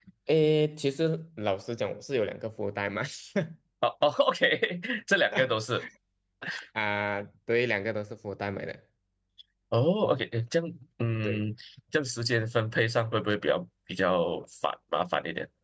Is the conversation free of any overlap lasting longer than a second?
Yes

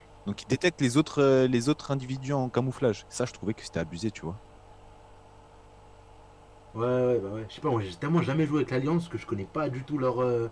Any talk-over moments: No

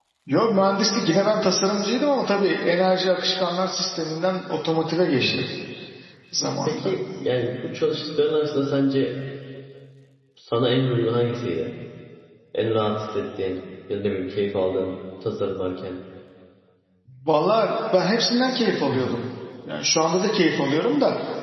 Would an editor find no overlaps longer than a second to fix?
Yes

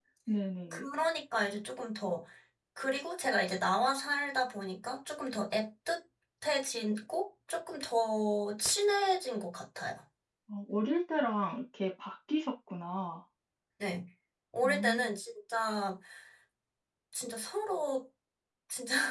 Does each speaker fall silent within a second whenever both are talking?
Yes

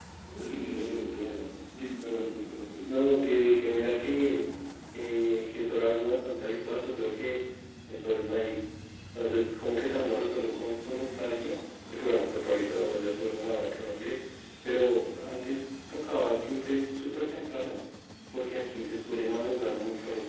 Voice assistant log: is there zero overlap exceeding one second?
Yes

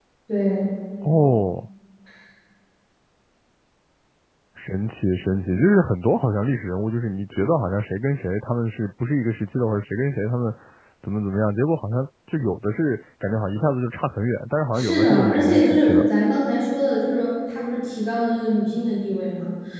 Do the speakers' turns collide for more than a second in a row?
Yes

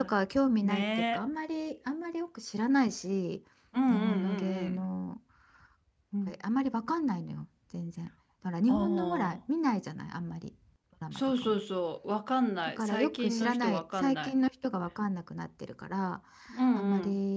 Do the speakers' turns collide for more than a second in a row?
Yes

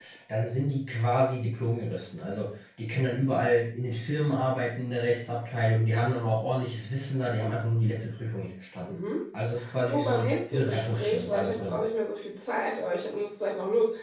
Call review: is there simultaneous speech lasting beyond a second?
Yes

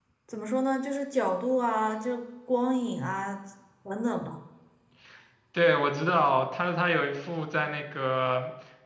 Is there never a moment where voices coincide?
Yes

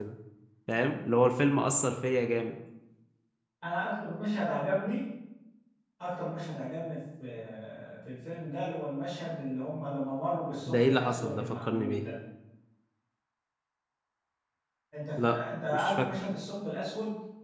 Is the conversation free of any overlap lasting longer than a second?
No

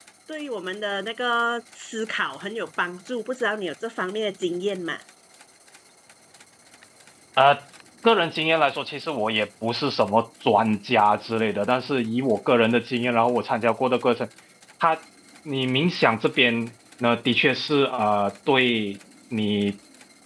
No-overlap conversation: Yes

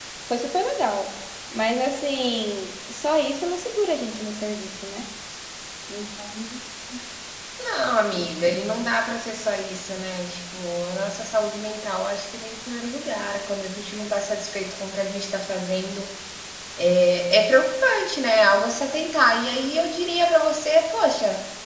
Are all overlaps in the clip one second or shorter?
Yes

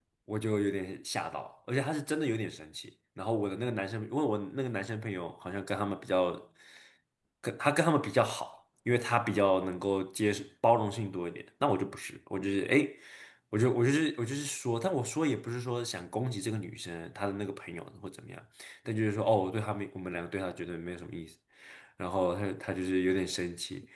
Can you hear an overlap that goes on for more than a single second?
No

